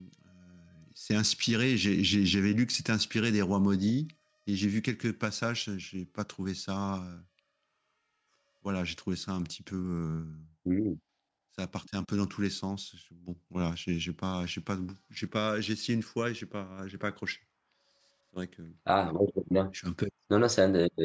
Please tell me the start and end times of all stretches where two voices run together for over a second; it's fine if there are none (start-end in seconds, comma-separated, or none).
none